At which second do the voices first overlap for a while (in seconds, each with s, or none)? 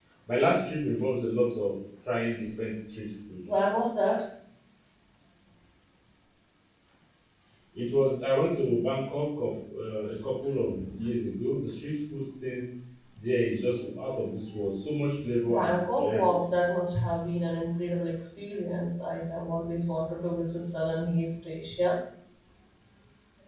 15.4 s